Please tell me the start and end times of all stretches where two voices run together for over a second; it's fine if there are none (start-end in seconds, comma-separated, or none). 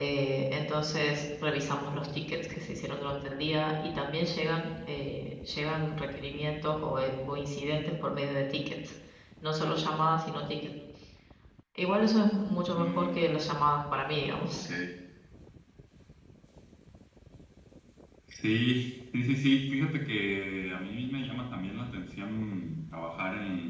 none